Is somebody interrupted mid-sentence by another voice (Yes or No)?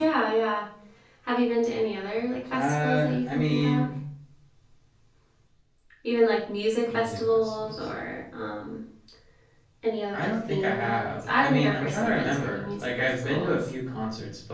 Yes